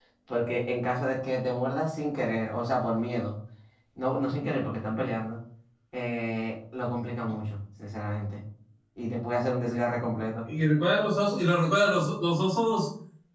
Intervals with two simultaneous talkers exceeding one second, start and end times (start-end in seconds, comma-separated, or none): none